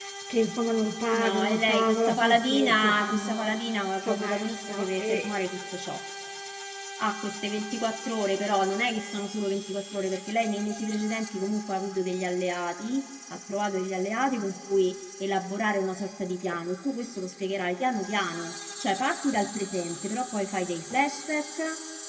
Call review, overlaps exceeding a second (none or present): present